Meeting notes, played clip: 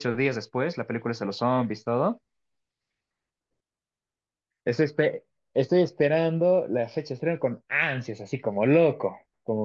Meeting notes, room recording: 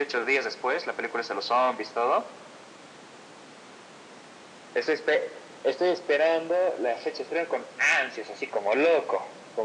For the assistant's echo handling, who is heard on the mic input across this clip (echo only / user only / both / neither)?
echo only